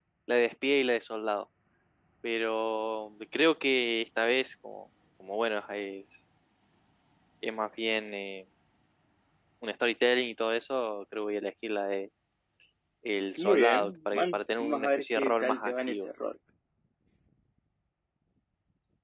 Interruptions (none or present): present